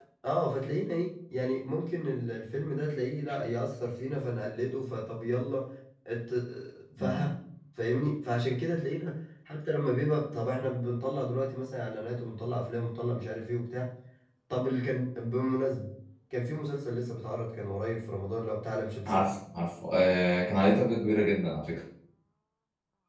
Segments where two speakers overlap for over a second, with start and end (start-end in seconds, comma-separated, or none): none